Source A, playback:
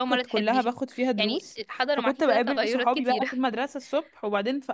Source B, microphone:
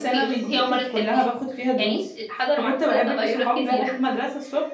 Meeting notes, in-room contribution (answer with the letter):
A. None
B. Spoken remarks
A